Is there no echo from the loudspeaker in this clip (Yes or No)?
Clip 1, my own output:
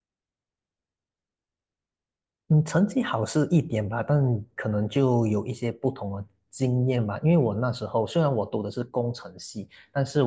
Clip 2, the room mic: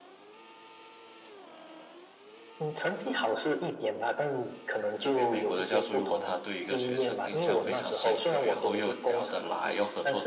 No